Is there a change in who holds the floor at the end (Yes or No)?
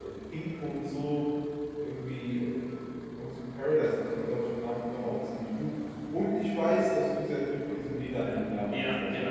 Yes